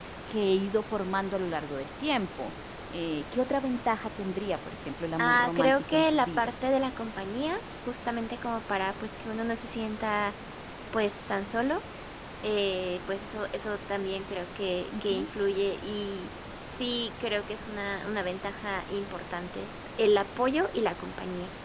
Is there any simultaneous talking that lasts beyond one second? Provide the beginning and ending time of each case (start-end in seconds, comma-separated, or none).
5.2-6.5